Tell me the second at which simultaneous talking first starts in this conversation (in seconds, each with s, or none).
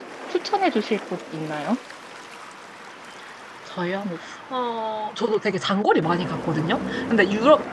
none